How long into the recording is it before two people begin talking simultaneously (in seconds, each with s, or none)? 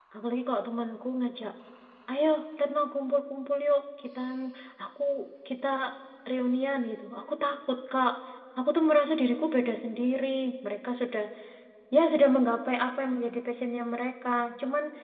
none